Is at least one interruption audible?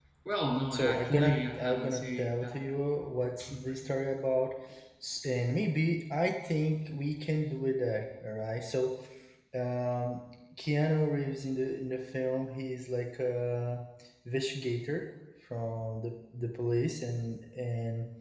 Yes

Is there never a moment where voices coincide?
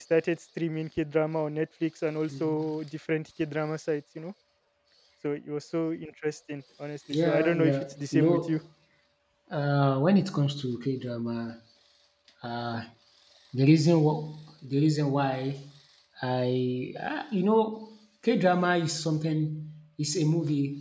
No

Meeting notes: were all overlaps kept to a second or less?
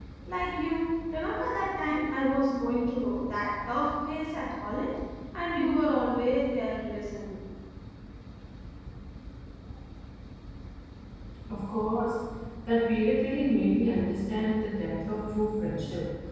Yes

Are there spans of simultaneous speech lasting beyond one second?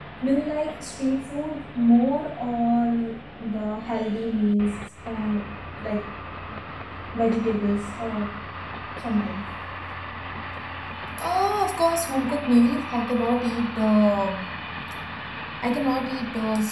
No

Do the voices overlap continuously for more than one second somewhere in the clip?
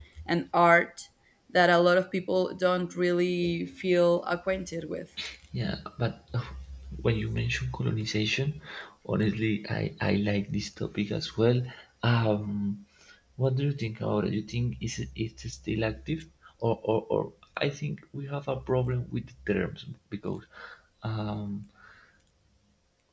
No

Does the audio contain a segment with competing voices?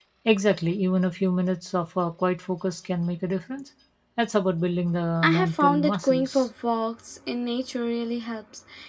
Yes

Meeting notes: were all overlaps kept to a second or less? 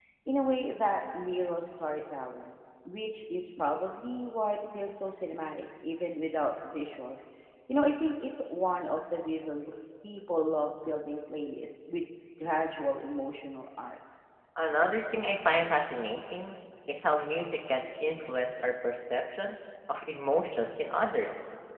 Yes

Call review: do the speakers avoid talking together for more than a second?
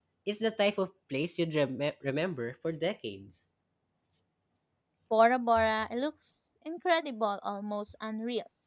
Yes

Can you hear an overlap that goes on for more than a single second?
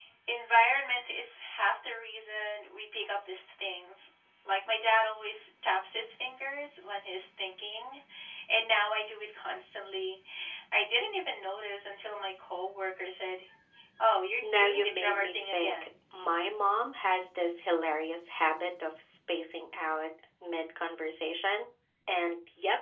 Yes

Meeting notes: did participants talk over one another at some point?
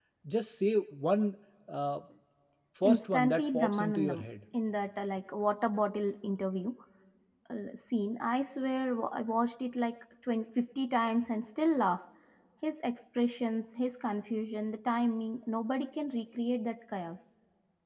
Yes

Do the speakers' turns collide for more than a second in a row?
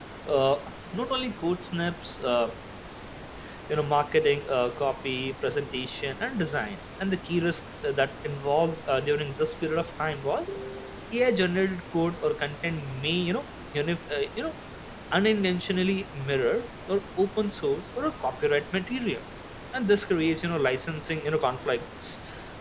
No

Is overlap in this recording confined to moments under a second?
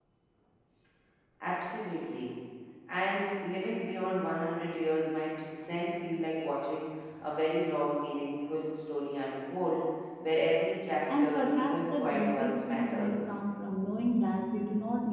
No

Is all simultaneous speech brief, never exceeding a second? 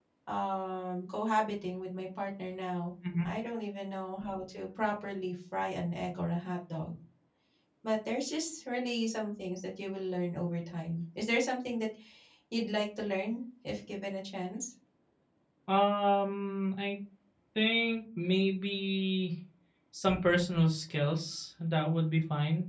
Yes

